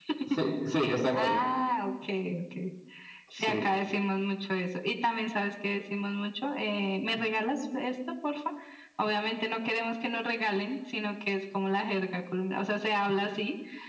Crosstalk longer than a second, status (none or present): none